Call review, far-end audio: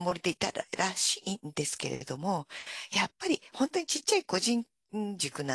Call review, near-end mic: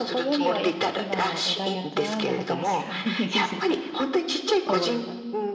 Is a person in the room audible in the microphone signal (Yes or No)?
Yes